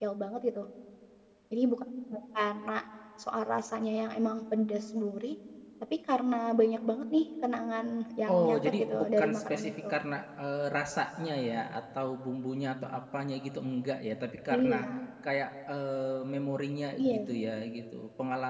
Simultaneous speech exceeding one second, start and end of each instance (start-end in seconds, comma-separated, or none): 8.3-10.0